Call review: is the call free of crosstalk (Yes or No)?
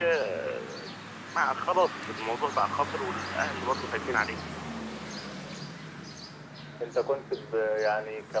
Yes